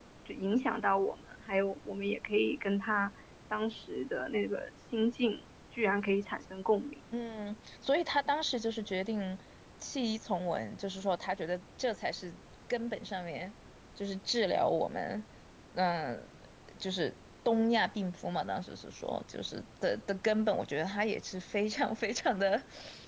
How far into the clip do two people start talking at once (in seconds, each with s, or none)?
none